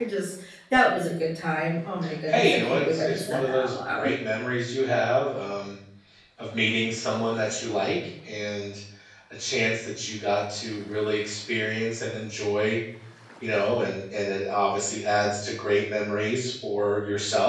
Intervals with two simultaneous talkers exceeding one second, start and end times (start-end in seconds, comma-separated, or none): 2.3-4.1